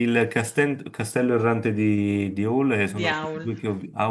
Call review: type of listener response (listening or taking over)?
listening